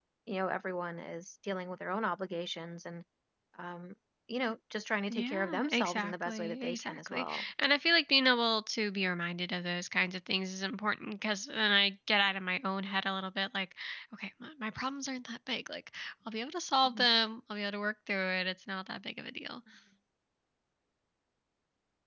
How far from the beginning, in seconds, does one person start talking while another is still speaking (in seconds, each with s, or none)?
5.1 s